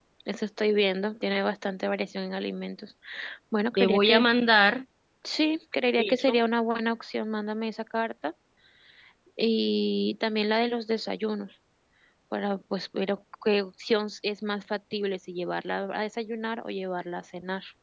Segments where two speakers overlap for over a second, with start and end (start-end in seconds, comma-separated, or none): none